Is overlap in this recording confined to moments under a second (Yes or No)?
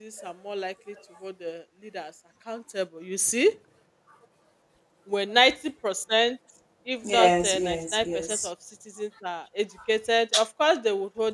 No